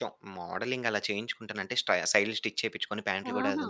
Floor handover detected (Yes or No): No